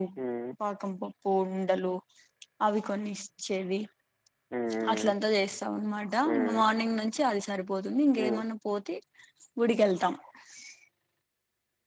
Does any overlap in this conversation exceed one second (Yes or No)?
No